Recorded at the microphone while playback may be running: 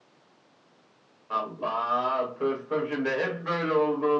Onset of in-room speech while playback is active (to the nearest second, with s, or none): none